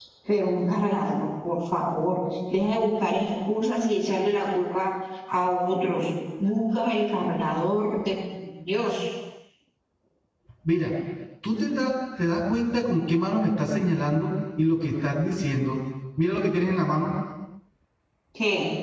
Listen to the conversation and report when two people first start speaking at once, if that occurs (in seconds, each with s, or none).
none